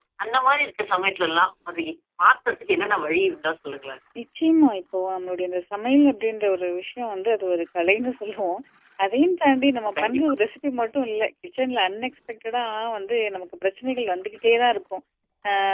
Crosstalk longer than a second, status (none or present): none